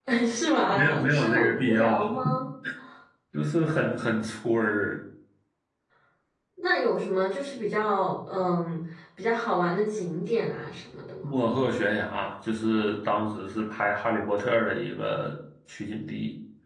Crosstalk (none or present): present